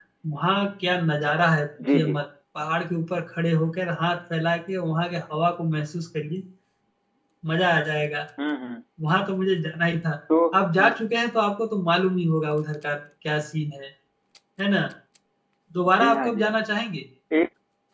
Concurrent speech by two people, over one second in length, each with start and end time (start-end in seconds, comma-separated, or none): none